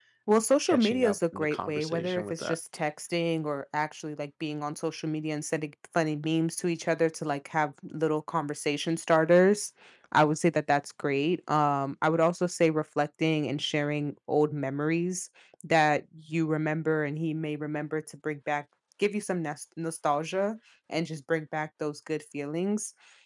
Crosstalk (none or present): present